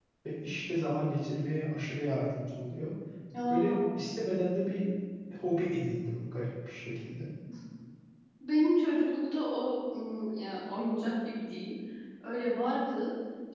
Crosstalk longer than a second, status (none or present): none